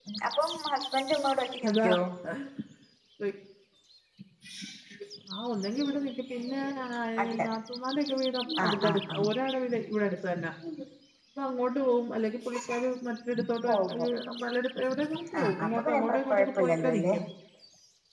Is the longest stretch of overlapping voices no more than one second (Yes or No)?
No